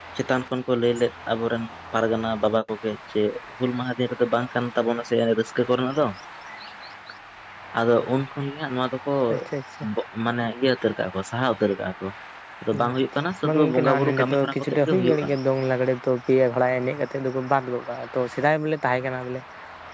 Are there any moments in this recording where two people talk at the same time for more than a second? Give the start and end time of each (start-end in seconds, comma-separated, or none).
13.5-15.3